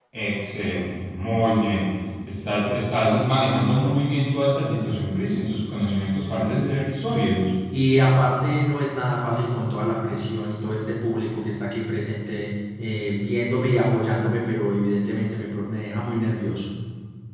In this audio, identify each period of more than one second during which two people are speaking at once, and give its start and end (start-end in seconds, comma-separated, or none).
none